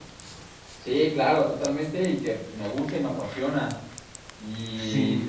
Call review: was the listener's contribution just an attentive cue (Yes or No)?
Yes